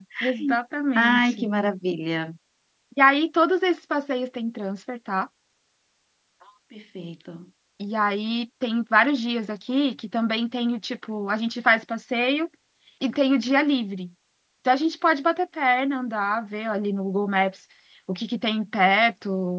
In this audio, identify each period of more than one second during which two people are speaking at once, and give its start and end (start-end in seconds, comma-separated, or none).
none